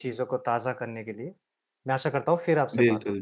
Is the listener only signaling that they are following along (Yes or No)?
No